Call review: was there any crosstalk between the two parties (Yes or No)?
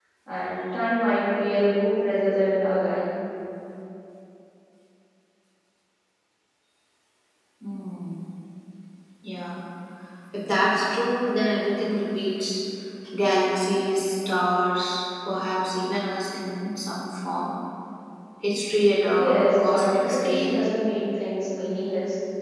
Yes